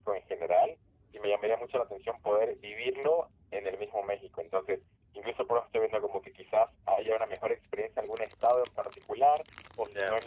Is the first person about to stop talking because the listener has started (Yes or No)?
No